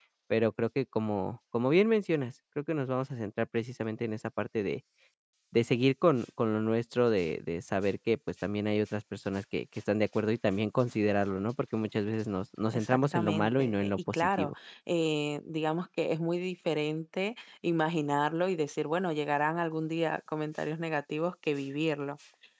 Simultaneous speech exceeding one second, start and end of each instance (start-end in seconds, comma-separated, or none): 12.7-14.5